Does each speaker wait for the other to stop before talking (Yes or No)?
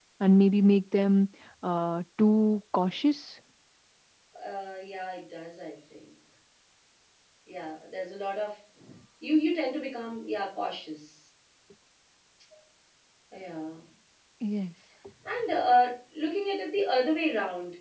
Yes